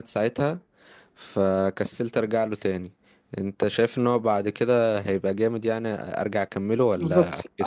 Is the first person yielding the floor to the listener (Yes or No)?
Yes